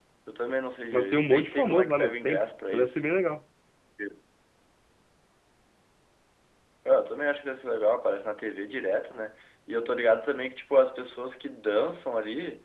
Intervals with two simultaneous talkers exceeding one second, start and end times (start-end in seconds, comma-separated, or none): 0.9-3.0